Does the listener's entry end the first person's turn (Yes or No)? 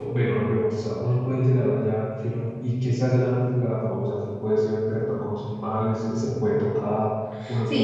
Yes